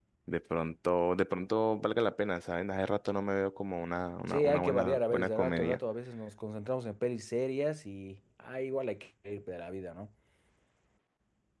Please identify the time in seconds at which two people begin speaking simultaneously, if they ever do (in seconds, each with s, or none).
4.3 s